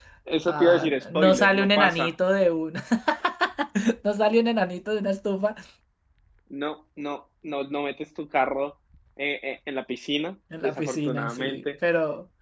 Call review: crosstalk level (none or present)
present